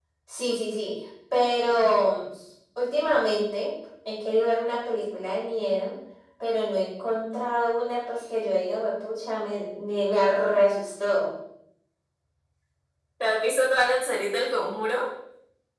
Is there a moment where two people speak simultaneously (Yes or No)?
No